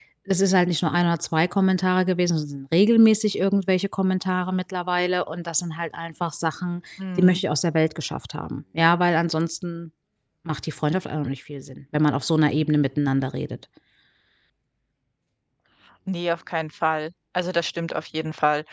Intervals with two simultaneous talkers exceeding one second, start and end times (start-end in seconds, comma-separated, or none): none